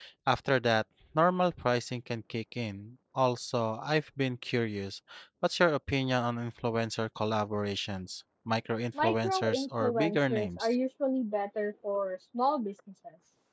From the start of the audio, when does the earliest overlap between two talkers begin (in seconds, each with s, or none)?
8.9 s